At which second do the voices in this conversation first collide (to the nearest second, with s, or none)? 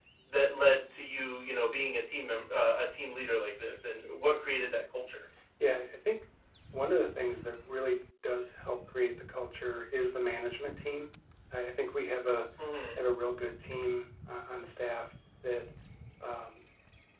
none